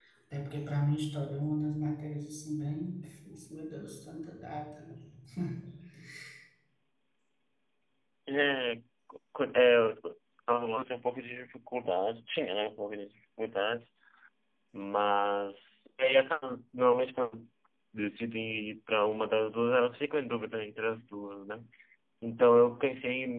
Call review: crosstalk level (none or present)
none